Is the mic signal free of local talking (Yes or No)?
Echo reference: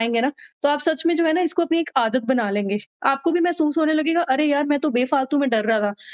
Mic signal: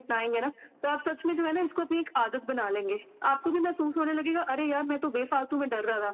Yes